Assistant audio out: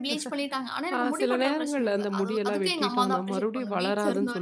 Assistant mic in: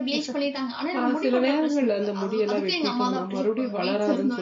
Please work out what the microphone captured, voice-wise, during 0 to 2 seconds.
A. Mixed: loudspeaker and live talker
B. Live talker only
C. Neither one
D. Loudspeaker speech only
D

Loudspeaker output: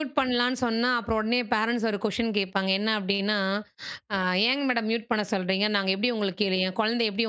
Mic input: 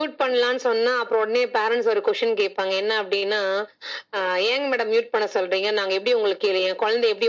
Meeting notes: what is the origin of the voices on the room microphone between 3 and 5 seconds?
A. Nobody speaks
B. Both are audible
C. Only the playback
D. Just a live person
C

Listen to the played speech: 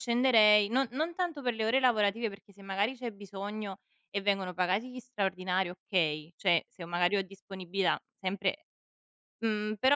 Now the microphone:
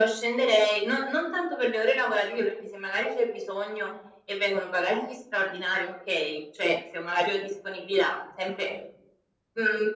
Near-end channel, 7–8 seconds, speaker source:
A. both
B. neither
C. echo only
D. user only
C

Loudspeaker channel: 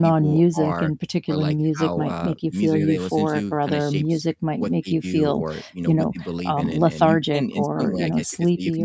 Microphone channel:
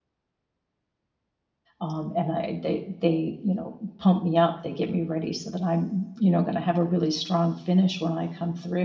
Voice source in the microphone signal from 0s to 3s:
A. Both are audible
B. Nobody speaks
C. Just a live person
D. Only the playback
C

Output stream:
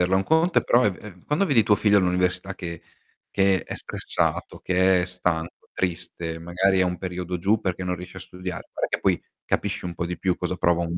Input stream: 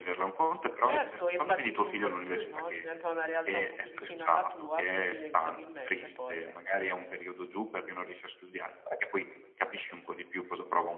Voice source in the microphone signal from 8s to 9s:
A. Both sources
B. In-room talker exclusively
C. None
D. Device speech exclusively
D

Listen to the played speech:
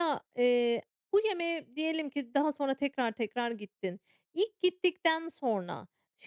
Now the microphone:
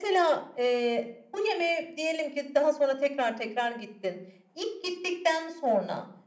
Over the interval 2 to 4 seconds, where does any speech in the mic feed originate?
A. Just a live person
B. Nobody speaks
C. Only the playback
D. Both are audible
C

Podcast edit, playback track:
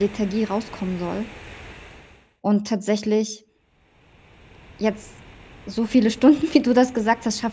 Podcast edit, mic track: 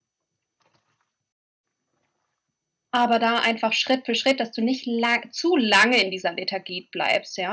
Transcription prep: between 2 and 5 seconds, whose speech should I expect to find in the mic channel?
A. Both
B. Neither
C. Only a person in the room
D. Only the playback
C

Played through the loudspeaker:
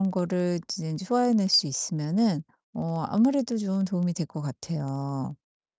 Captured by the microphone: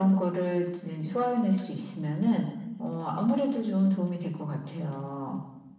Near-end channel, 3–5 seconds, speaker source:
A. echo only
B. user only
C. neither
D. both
A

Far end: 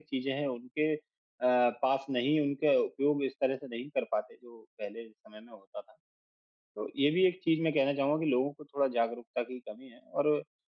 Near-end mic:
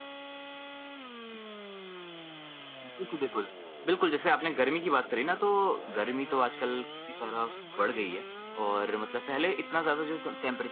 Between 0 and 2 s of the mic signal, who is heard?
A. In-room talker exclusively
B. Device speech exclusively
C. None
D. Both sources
C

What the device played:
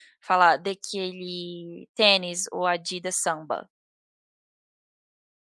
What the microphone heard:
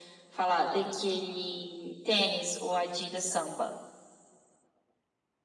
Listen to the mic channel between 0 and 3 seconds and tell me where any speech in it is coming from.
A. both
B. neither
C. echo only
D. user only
C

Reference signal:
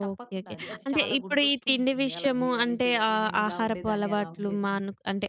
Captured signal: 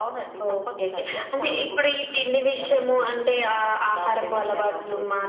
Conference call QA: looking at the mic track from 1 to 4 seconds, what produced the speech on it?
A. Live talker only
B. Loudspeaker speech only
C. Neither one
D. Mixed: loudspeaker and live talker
B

